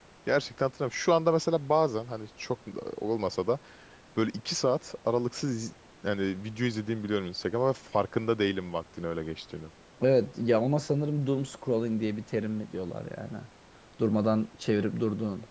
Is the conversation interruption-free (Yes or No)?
Yes